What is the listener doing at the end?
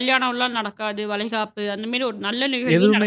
taking over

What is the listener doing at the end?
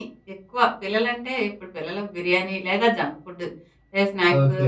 taking over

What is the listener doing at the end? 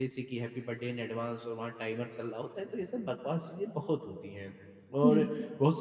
listening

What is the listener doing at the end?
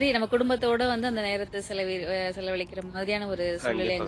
taking over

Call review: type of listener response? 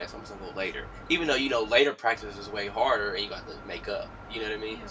taking over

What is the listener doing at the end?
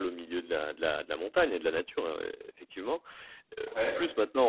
listening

